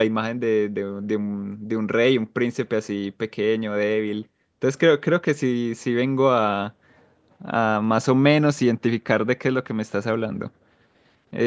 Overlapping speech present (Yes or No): No